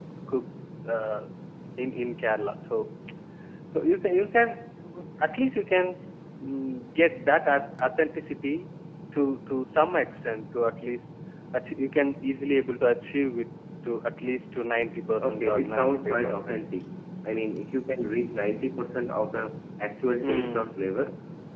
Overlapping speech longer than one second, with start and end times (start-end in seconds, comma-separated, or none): 15.2-16.6